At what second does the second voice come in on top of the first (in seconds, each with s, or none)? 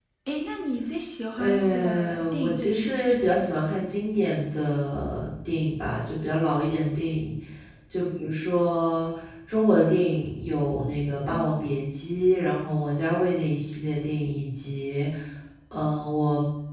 1.4 s